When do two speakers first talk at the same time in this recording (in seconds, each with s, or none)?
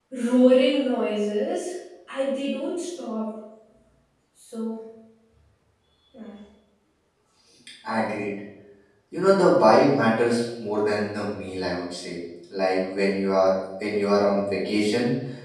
none